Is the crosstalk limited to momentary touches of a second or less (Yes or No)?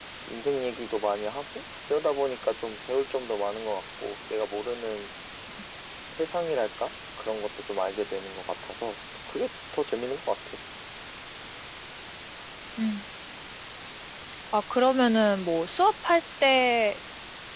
Yes